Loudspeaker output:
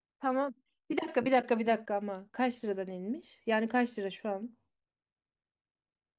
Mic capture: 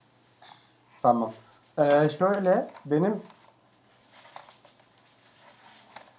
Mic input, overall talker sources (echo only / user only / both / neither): user only